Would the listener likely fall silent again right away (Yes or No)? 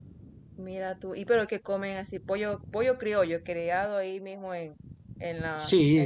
No